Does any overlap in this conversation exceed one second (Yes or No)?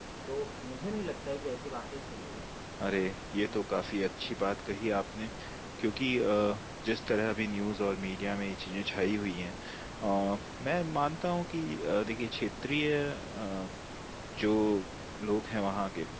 No